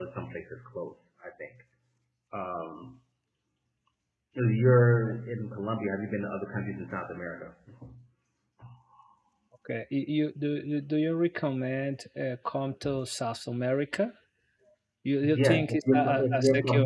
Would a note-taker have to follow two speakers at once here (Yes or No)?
Yes